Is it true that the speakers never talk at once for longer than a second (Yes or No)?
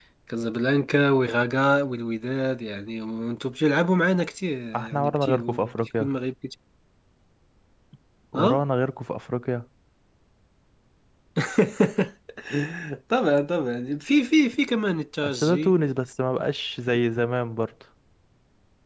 No